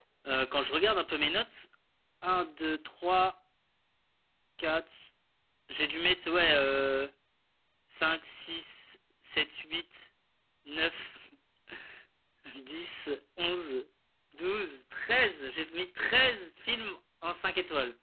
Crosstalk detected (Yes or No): No